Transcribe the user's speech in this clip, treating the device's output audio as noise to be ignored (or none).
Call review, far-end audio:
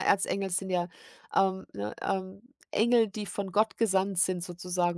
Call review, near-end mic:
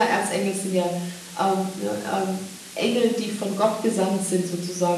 none